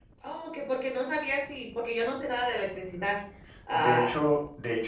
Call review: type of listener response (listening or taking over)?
taking over